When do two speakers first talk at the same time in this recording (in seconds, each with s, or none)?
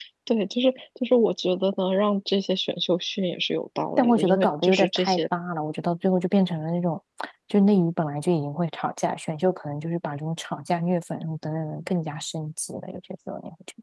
4.0 s